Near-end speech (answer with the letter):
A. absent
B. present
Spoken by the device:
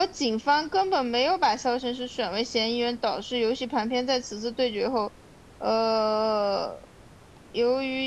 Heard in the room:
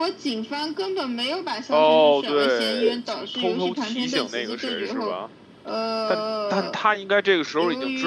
B